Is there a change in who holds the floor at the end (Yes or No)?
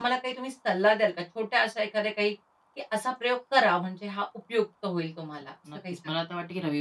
Yes